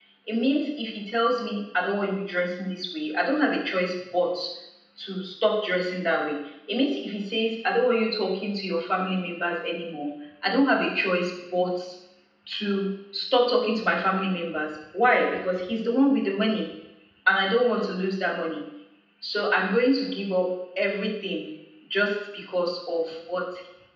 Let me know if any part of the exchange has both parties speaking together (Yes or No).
No